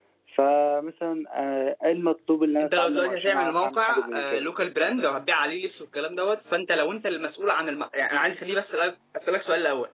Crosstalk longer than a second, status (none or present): present